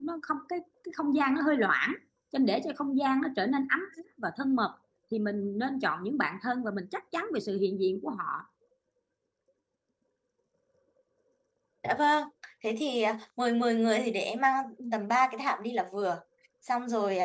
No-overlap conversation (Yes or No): Yes